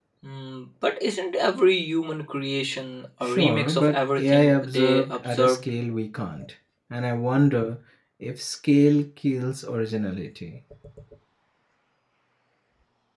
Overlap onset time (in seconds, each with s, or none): 3.2 s